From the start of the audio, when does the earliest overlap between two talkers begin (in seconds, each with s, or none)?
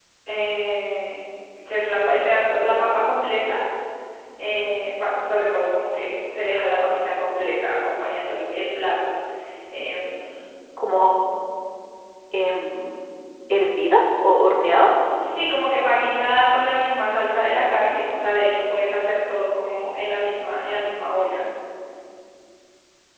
none